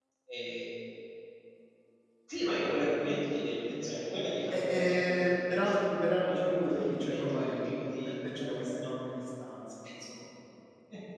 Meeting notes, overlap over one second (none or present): present